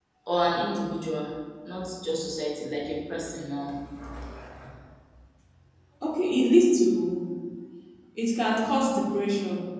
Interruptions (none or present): none